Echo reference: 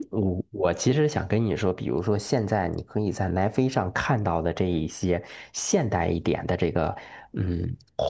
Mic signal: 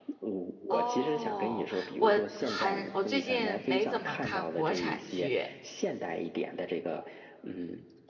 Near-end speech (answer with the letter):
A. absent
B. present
B